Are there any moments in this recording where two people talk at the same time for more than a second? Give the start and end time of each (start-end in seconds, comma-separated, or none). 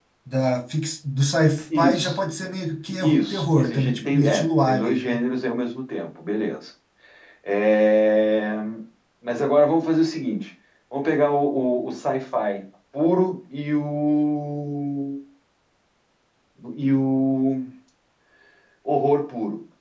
3.0-5.2